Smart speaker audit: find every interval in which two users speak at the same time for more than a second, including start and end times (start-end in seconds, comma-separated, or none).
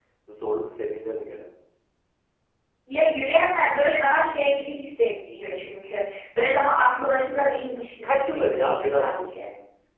7.7-9.4